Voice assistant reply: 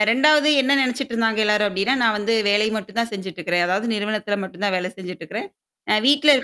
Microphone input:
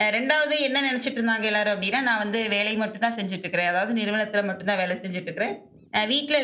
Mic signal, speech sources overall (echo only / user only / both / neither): echo only